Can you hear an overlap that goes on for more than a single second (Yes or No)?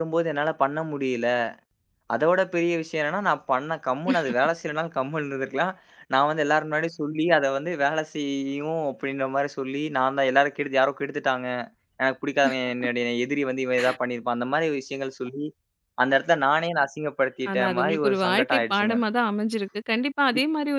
Yes